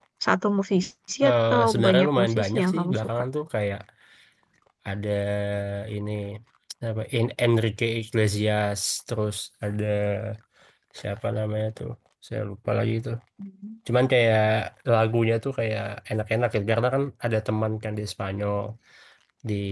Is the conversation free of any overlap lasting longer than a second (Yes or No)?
No